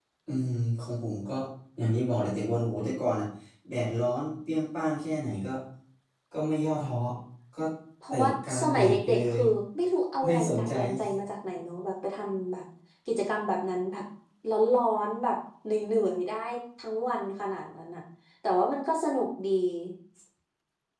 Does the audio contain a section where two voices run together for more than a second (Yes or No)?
Yes